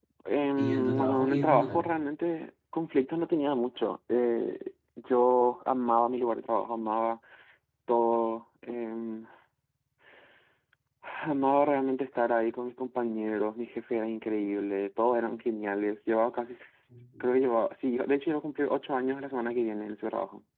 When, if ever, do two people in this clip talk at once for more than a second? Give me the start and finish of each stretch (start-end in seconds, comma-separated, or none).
0.6-1.9